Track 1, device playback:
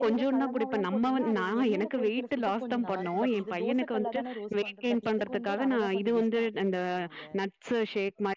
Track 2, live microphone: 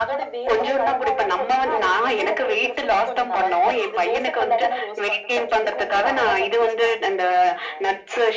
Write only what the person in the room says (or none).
none